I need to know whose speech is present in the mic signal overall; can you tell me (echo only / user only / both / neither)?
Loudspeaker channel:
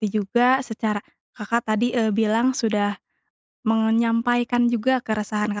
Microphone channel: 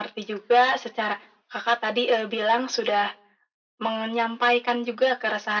echo only